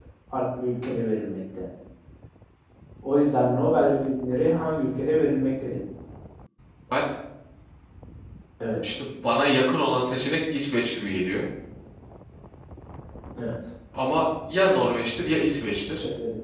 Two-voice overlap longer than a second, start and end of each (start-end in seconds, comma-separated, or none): none